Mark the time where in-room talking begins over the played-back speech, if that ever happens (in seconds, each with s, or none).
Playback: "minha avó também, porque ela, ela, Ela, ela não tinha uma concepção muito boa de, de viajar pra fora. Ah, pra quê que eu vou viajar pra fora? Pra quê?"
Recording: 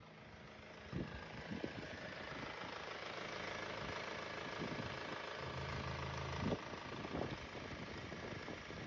none